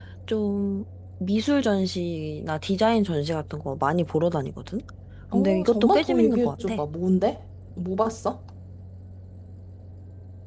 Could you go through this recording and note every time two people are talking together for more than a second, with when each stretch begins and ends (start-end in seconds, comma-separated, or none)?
5.3-6.8